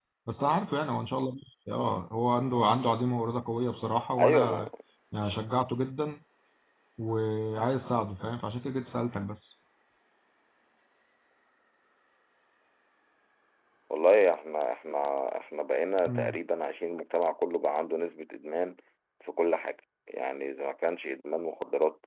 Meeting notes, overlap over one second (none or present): none